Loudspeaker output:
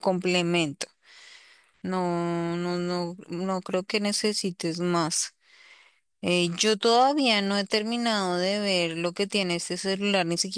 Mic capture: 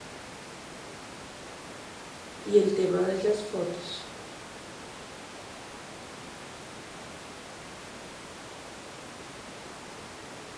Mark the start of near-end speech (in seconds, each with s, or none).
2.4 s